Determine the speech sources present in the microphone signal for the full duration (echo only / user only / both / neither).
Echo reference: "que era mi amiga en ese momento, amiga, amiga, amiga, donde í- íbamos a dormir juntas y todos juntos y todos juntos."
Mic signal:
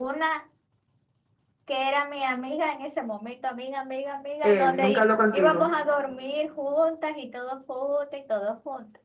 both